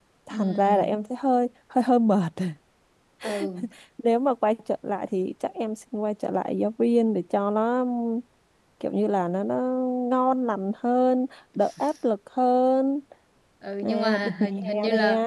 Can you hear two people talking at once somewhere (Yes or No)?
Yes